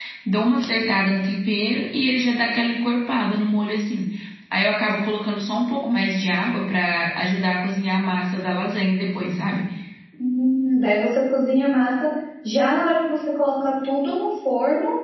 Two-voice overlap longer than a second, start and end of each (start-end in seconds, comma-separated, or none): none